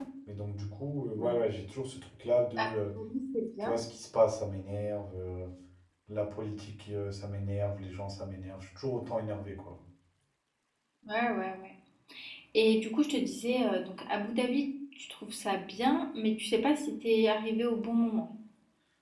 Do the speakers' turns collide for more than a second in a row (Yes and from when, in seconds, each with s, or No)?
No